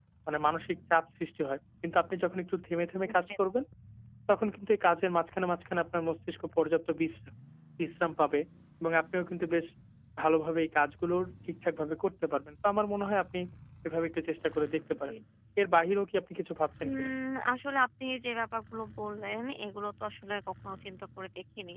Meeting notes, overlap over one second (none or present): none